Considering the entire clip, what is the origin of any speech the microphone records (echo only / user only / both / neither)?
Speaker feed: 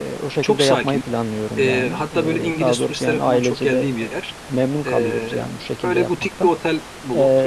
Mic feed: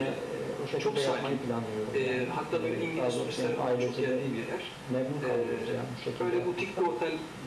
echo only